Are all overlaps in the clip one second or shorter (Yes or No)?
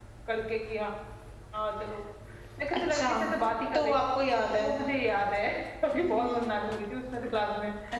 Yes